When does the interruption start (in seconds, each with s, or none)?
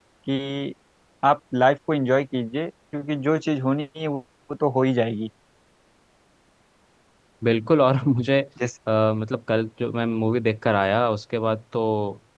none